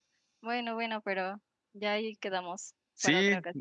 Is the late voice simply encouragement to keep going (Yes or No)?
No